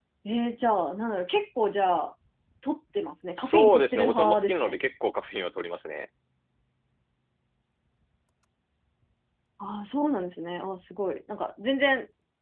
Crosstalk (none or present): present